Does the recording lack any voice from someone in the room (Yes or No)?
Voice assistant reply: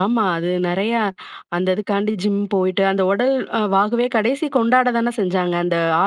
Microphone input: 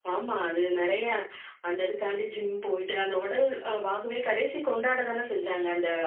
Yes